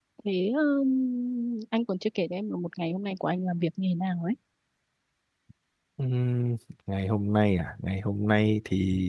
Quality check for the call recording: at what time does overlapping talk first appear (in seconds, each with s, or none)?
none